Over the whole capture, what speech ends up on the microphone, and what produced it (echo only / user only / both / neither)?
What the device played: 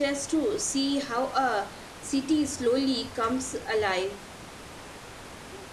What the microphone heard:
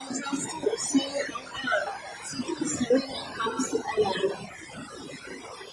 echo only